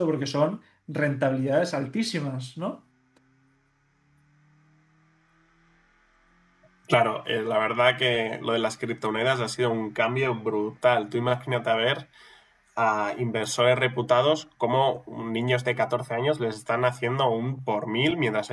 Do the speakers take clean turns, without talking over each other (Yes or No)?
Yes